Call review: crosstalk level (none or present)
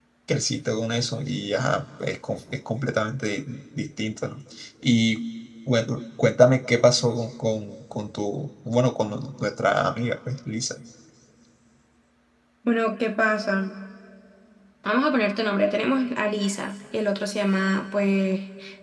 none